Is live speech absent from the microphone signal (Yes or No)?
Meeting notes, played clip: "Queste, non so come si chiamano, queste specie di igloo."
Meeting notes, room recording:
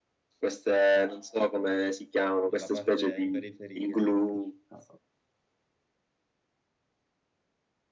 No